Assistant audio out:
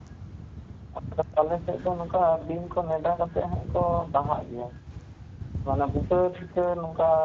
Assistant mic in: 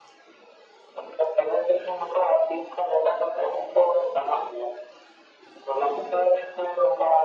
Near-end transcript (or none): none